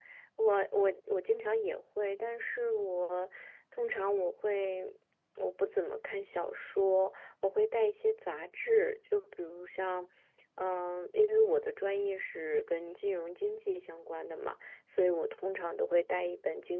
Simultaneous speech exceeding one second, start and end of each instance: none

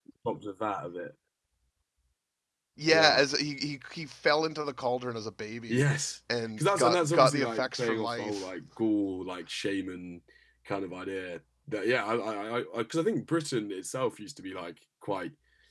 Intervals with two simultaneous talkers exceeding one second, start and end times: 6.6-8.5

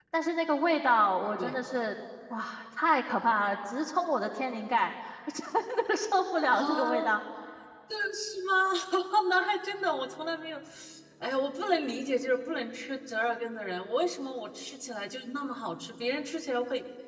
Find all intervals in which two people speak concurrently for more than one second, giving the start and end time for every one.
none

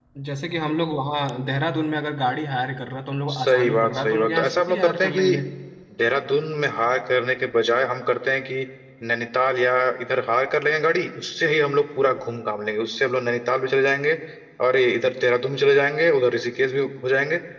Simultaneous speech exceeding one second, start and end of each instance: 3.3-5.4

